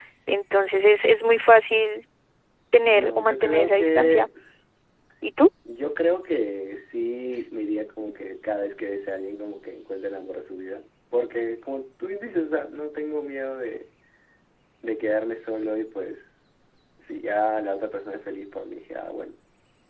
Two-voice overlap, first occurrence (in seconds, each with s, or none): 2.8 s